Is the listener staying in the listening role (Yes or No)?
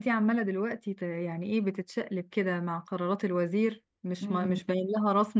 Yes